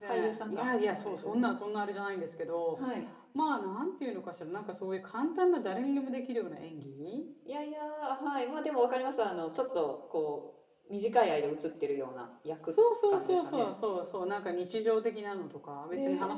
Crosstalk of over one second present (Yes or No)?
Yes